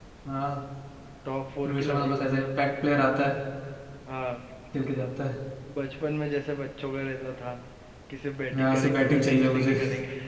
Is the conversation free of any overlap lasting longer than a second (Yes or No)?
No